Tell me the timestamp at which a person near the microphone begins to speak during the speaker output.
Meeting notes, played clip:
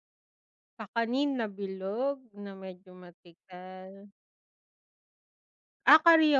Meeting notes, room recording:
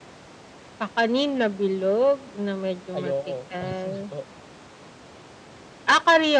2.9 s

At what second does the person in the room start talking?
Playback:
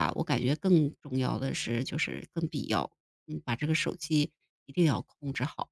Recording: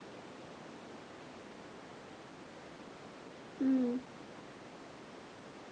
3.6 s

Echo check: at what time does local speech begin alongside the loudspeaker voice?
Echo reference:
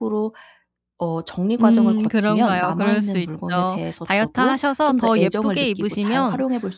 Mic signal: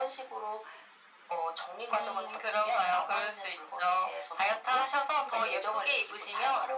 none

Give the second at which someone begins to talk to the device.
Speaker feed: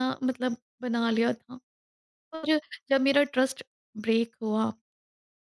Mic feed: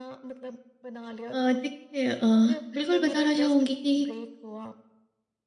1.3 s

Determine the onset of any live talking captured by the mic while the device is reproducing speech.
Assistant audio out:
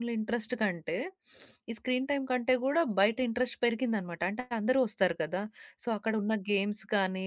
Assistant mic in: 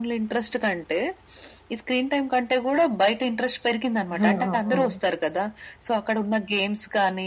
4.1 s

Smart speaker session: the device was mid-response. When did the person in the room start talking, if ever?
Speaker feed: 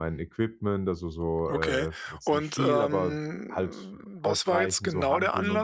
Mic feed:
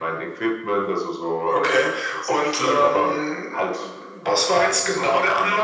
none

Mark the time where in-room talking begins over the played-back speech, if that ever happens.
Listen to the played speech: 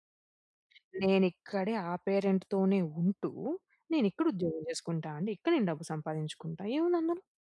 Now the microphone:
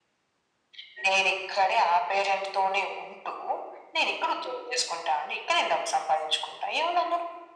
none

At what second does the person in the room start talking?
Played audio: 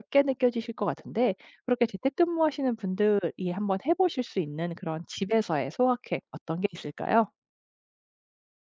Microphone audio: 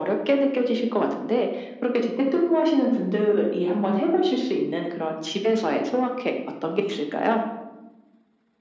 none

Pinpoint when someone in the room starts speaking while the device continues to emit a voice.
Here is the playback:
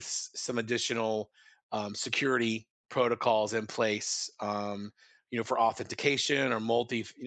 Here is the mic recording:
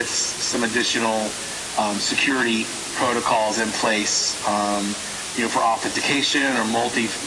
none

